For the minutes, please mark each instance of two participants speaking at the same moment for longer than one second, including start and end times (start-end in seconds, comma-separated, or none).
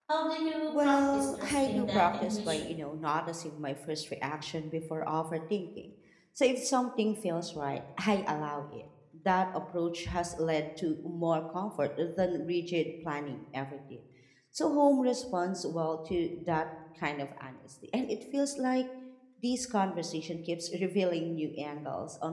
0.7-2.7